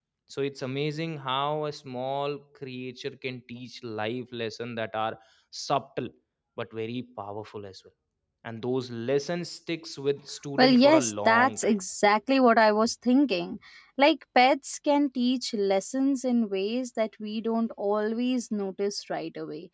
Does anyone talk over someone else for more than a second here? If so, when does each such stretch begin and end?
10.6-11.8

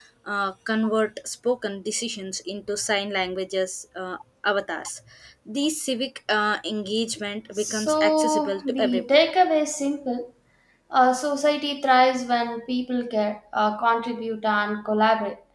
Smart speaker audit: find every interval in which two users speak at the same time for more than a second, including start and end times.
7.6-9.0

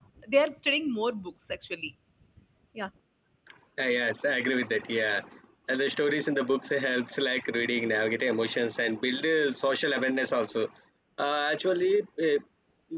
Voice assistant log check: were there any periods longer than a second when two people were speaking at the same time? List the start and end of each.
none

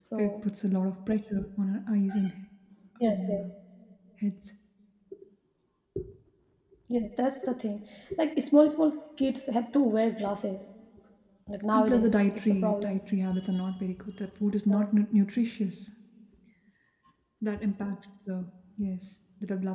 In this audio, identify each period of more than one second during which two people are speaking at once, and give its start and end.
11.7-13.0

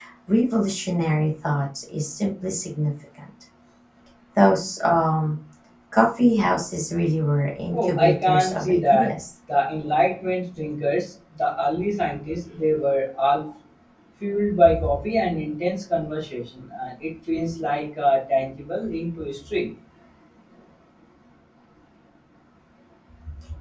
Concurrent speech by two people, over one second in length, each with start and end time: 7.7-9.2

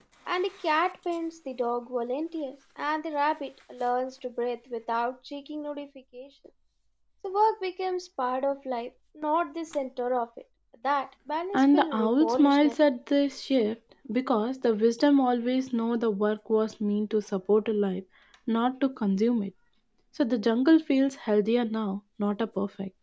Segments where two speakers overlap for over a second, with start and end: 11.5-12.7

